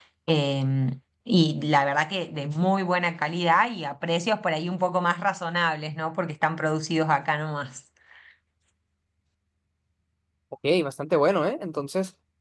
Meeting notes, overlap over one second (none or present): none